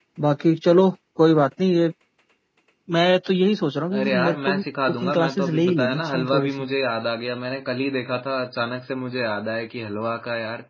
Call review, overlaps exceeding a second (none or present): present